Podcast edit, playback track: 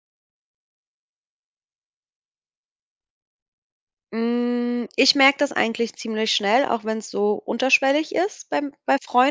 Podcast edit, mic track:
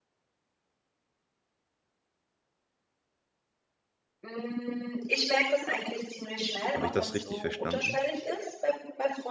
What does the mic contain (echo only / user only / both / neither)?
both